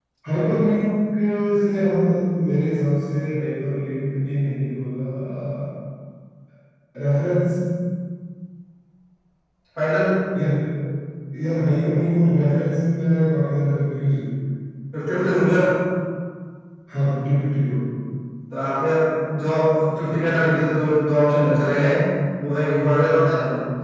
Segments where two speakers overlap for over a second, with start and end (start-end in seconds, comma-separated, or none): none